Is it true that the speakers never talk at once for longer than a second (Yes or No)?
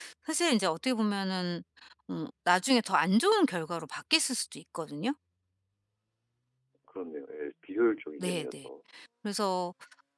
Yes